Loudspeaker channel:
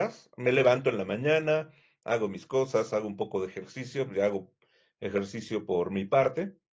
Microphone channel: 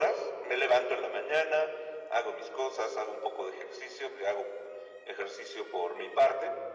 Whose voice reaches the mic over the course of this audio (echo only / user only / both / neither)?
echo only